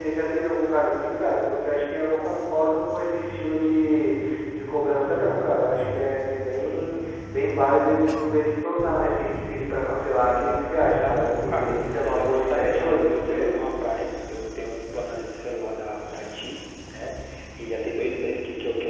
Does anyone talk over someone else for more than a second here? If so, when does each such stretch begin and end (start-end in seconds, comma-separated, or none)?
11.0-13.6